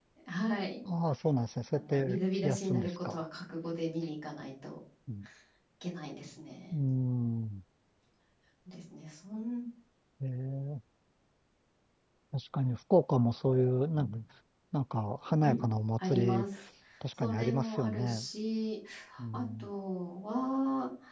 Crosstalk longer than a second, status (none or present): present